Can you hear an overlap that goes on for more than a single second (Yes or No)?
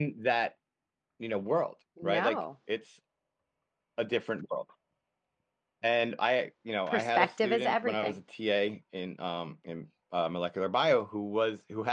Yes